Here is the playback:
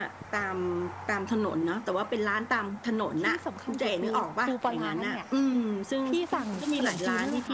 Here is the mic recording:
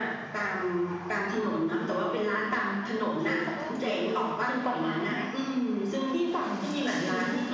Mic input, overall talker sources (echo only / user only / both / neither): both